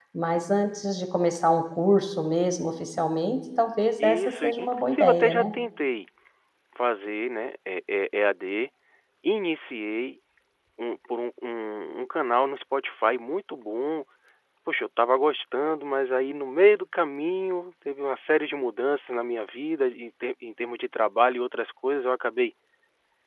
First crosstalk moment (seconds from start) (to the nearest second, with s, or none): 4 s